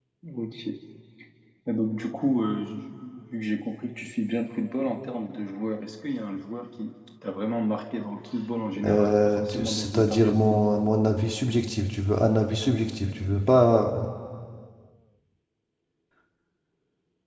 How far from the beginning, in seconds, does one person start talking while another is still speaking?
8.7 s

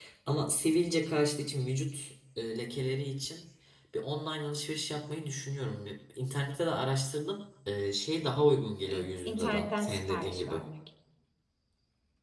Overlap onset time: 8.8 s

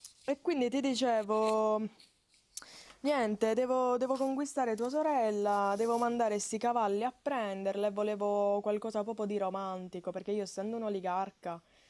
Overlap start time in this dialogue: none

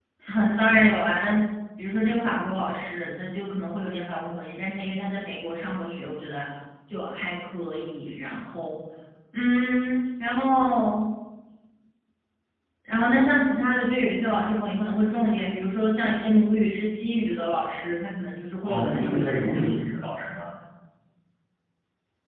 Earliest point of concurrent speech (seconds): 18.6 s

